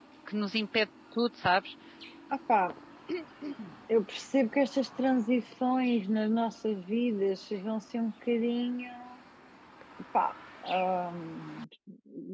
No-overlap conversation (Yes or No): Yes